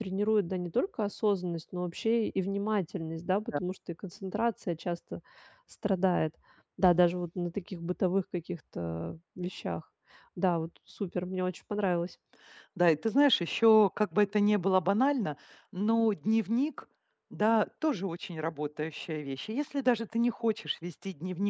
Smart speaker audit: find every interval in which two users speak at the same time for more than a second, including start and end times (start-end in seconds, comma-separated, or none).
none